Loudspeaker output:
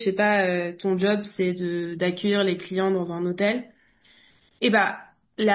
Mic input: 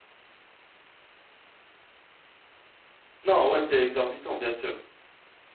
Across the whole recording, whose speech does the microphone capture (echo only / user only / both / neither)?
user only